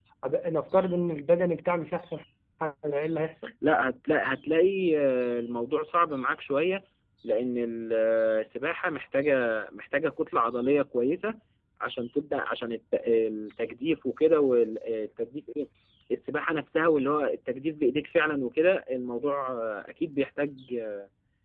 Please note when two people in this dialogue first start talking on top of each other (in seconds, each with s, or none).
none